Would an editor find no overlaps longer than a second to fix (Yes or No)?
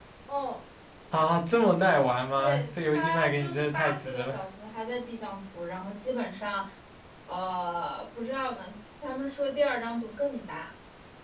No